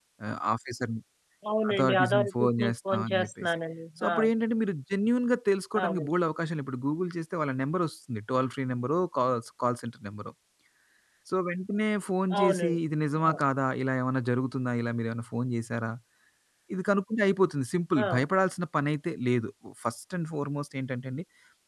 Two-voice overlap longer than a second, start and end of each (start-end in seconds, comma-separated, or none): 1.7-3.6